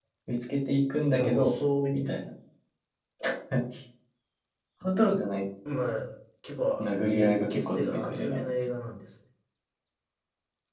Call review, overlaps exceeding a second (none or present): present